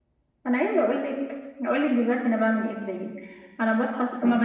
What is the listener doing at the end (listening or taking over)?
listening